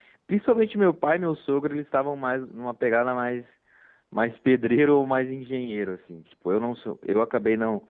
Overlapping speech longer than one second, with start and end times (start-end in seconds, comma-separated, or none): none